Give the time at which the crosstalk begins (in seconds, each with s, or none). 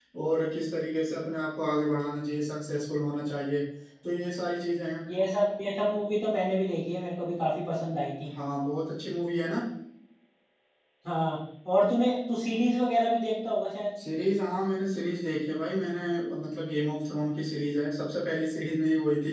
none